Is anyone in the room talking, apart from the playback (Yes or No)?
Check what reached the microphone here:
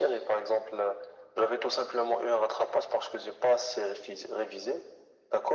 No